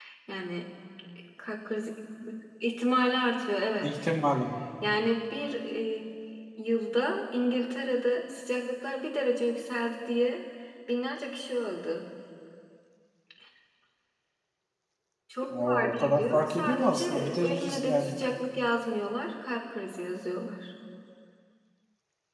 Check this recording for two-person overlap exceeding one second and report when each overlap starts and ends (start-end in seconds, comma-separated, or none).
15.7-18.1